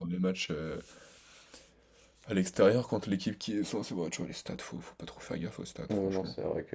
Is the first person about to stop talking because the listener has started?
Yes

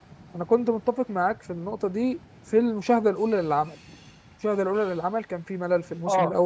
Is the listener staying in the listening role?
Yes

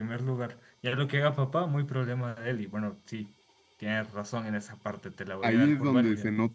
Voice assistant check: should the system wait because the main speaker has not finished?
No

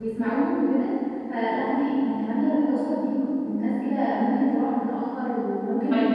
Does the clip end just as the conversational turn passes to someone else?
Yes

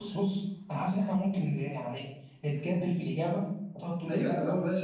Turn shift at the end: Yes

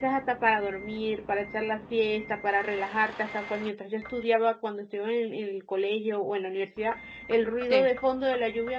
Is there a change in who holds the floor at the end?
No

